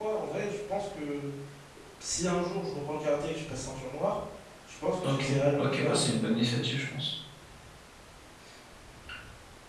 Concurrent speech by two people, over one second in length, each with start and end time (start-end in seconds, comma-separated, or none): 5.0-6.5